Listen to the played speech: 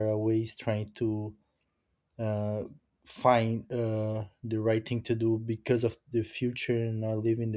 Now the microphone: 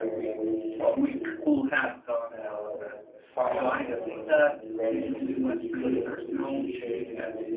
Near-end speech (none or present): present